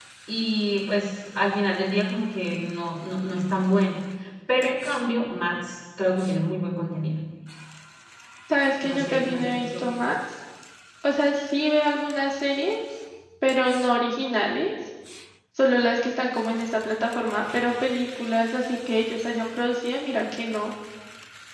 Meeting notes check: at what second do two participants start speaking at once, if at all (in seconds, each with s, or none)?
8.9 s